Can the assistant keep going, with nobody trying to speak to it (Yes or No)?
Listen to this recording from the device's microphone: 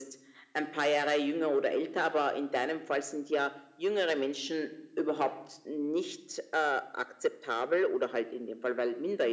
Yes